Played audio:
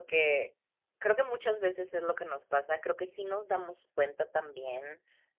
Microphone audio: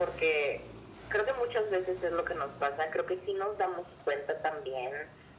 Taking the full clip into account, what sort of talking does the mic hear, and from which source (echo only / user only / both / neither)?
echo only